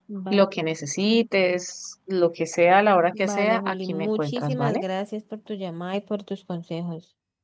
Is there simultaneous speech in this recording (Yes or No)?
Yes